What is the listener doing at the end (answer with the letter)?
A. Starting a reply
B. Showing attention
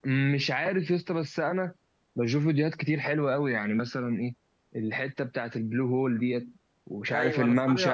A